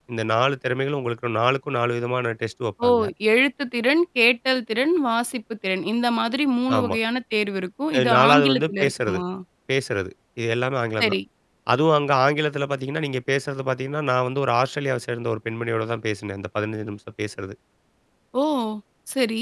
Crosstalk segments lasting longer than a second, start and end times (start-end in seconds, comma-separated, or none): 8.0-9.2